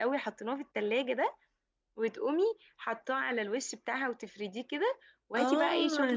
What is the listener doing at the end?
taking over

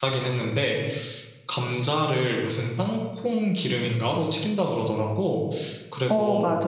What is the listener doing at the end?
listening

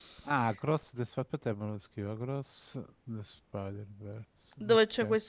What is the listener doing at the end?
taking over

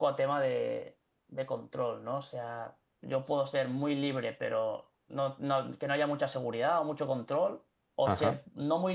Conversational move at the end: listening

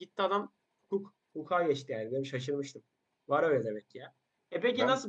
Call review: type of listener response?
listening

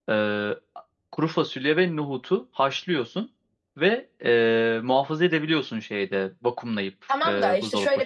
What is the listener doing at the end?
taking over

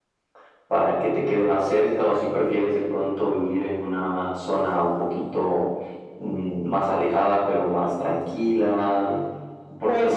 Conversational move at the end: taking over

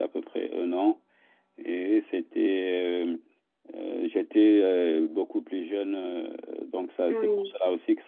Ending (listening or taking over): listening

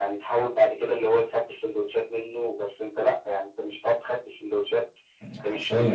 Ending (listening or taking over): listening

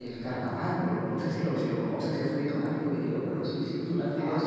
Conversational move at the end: taking over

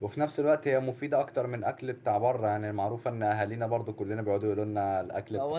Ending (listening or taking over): taking over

